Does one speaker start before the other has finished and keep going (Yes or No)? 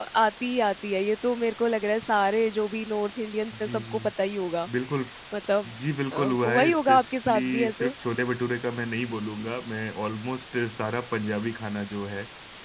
Yes